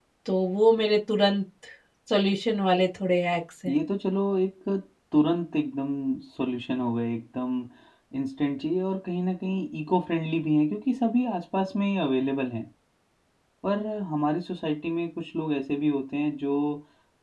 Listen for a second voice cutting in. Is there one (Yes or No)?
No